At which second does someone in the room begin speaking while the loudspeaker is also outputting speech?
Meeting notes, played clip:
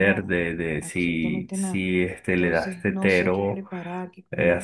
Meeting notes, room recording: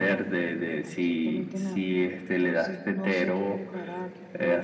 none

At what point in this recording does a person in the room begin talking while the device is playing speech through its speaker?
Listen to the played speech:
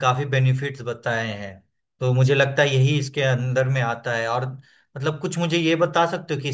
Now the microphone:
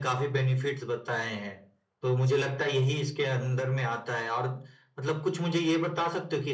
none

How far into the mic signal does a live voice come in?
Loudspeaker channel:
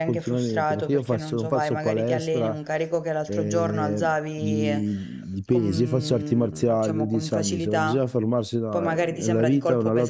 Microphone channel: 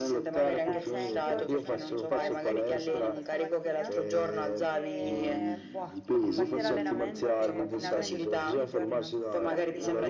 0.3 s

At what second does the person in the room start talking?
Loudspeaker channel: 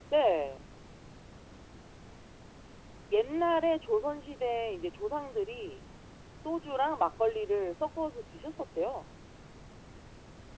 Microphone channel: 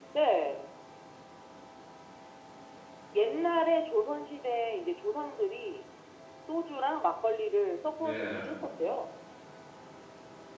8.0 s

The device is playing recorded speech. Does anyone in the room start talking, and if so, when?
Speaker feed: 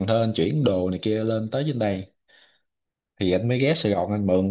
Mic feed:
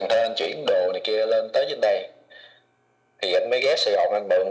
none

